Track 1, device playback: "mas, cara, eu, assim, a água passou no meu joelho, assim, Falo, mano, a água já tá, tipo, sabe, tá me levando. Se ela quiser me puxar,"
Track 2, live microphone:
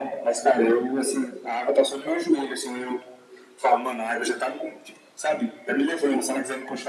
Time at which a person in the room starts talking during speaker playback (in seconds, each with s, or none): none